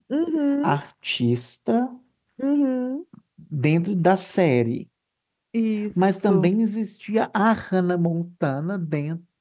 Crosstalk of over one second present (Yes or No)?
No